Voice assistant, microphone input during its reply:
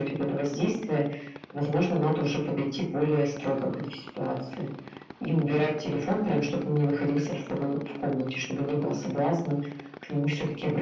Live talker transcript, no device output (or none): none